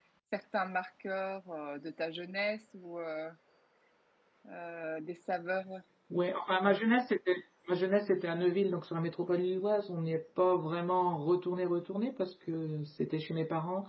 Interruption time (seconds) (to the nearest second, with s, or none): none